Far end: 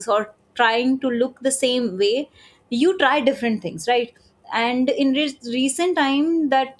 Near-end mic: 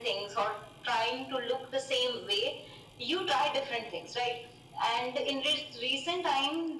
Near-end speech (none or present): none